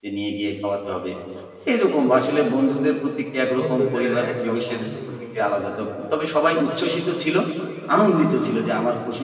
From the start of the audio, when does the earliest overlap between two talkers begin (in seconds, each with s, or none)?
3.6 s